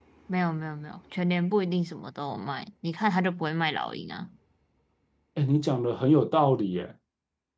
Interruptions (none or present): none